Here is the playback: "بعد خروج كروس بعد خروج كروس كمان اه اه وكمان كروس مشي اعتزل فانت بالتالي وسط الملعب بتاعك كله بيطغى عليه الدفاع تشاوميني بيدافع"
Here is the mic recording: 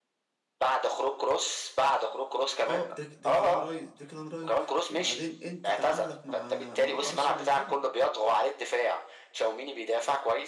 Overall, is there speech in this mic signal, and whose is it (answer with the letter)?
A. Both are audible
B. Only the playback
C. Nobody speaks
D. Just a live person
A